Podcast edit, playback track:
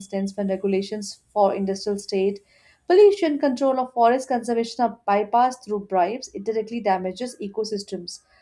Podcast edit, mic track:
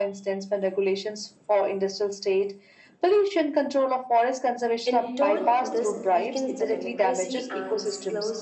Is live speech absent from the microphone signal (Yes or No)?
No